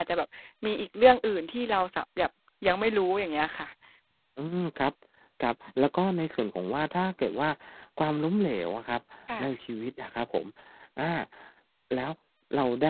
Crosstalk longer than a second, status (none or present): none